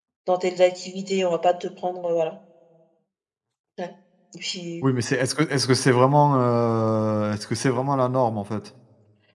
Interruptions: none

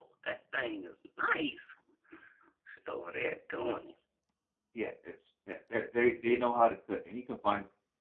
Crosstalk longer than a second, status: none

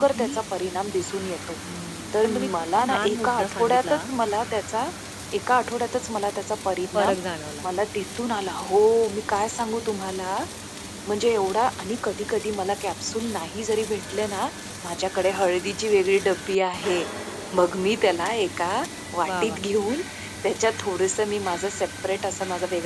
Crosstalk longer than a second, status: present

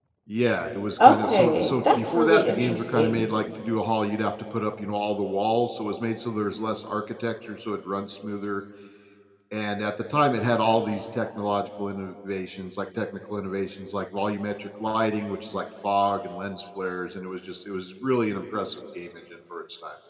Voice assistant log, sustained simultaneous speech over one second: present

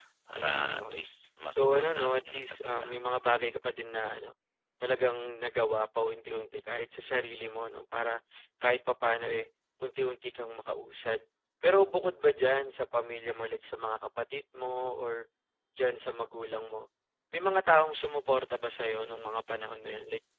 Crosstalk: present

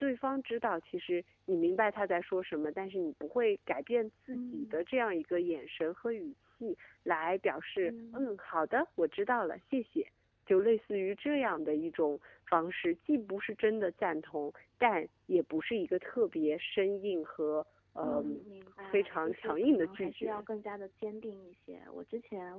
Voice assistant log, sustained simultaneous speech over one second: present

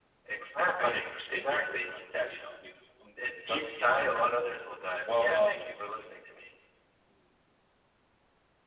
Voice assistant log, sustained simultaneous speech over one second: present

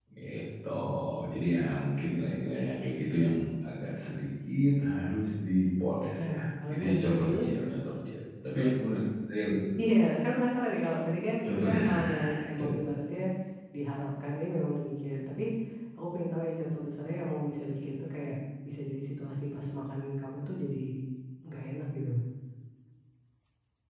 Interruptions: present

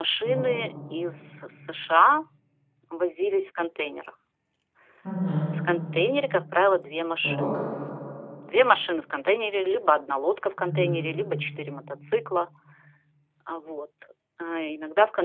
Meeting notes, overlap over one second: none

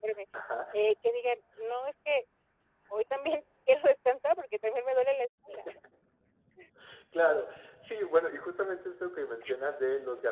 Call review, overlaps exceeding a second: none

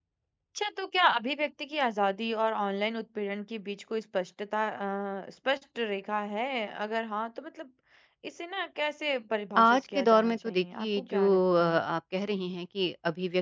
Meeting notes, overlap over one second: present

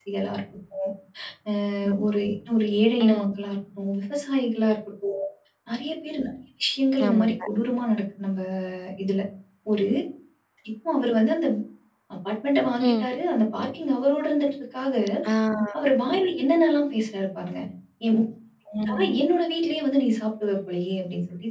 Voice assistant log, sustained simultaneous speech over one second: none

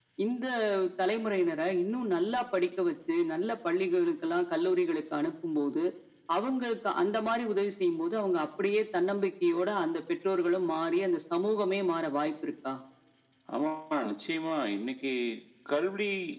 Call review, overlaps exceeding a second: none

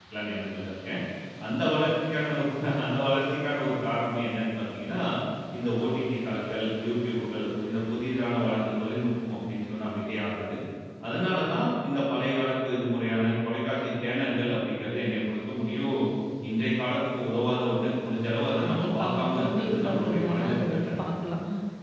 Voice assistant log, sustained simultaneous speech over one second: present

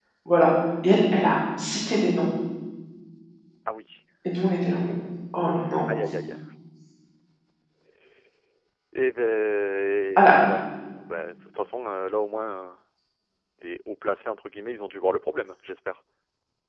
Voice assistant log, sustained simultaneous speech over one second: none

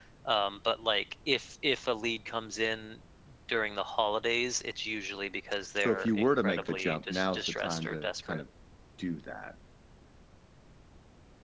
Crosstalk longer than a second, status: present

